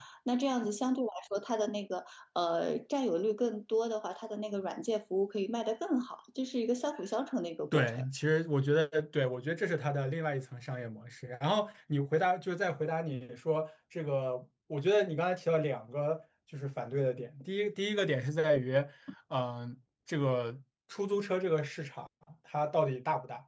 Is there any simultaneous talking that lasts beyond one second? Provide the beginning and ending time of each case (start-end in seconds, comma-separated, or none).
none